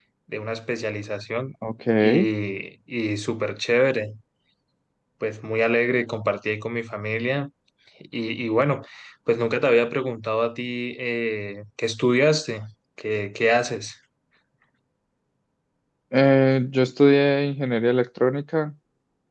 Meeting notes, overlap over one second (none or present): none